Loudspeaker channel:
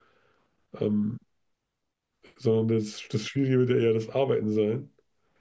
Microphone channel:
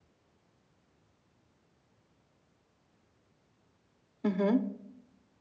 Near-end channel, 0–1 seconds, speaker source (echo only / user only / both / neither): neither